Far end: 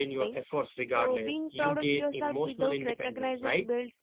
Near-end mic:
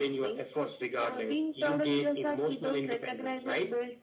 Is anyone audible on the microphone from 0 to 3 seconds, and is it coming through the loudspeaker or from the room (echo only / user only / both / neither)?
echo only